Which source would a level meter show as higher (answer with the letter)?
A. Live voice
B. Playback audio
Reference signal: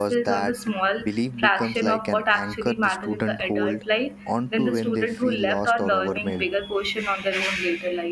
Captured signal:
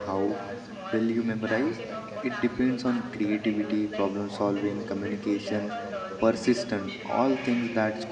A